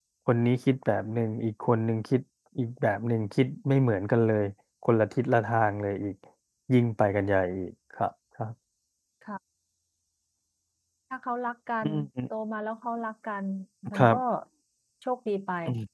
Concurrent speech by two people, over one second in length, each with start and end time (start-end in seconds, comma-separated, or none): none